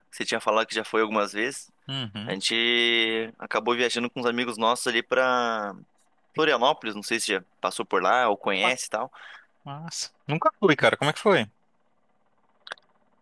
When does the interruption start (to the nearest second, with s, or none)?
none